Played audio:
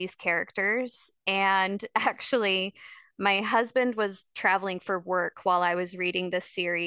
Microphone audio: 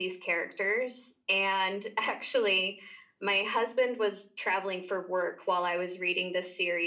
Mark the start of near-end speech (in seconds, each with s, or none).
none